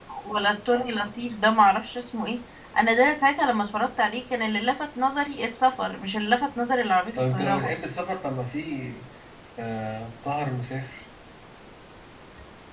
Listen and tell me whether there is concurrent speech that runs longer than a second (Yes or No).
No